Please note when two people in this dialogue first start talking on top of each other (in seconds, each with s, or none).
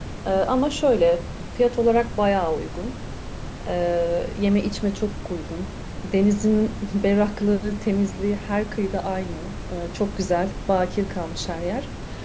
none